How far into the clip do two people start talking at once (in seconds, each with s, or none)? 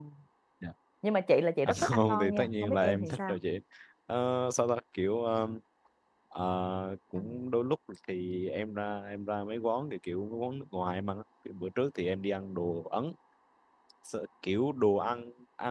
1.7 s